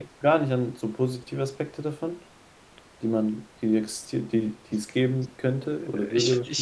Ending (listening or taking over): taking over